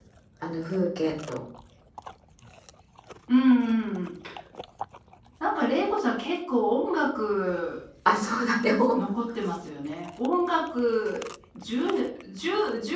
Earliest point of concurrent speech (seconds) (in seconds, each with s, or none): none